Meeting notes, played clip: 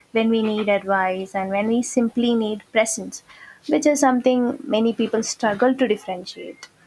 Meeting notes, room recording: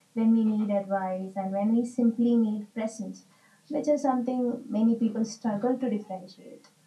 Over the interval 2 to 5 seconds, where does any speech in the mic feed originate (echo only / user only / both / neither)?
echo only